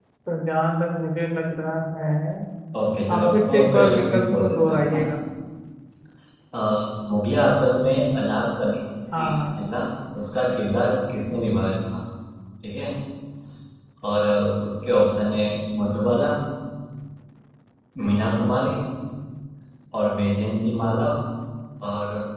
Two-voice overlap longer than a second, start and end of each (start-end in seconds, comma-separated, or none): 3.1-5.0